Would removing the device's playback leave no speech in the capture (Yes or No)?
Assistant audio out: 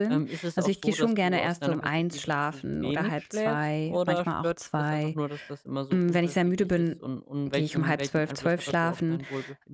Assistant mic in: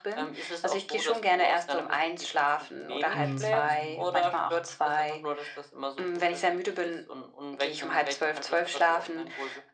No